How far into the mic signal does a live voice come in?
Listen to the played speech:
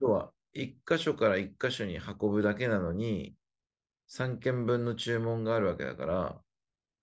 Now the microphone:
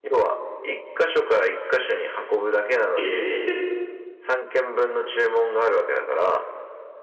3.0 s

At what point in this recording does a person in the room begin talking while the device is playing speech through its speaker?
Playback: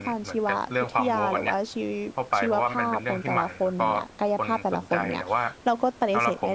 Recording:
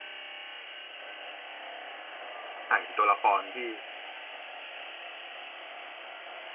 2.7 s

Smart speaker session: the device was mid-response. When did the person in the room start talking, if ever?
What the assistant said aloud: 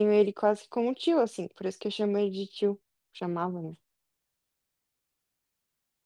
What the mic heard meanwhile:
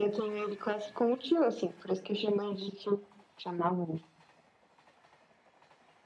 none

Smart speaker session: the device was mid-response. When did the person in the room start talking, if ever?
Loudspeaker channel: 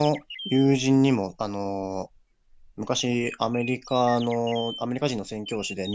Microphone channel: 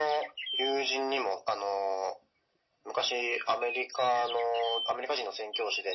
none

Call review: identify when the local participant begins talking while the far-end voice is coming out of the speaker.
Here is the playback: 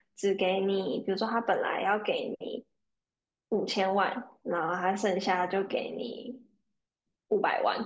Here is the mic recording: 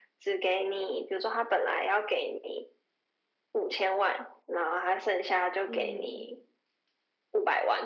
5.6 s

